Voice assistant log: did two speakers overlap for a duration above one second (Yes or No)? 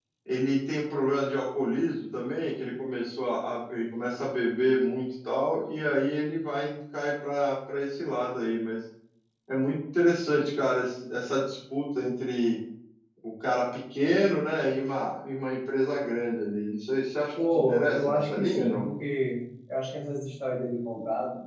Yes